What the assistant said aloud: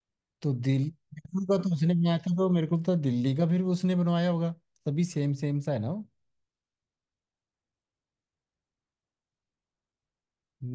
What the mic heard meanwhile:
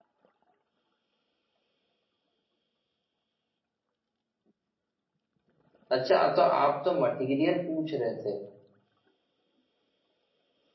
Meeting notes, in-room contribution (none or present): present